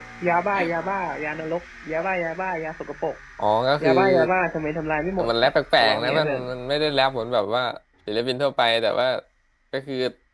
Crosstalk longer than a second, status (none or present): present